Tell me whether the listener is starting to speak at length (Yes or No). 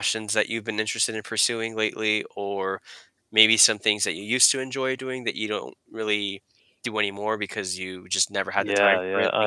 Yes